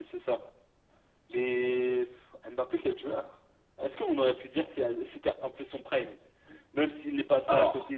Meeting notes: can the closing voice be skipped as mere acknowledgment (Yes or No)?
Yes